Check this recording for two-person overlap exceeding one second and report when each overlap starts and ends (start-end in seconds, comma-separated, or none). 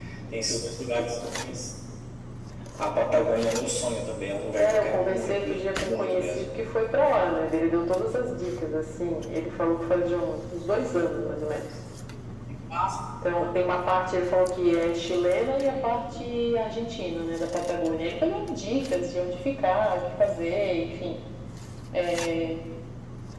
4.6-6.6